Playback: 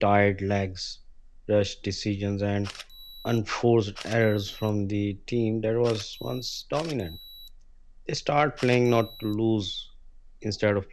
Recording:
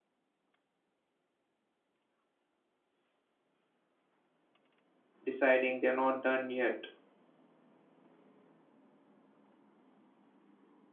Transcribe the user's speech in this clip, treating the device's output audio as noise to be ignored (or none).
deciding they're not done yet.